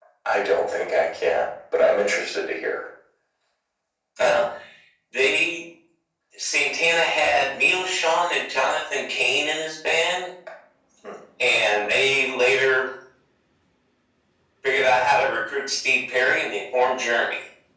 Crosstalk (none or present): none